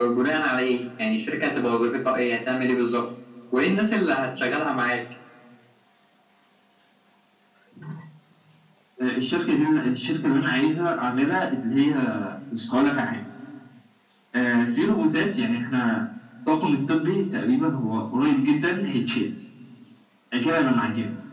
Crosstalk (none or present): none